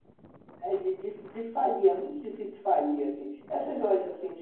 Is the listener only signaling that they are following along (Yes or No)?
Yes